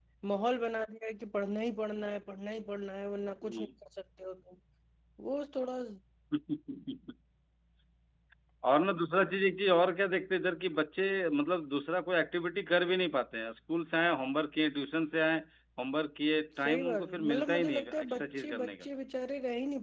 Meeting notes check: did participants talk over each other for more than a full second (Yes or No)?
Yes